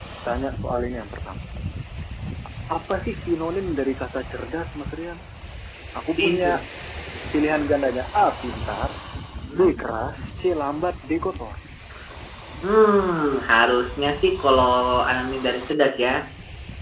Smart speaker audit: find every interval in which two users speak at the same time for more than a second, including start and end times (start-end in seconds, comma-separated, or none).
none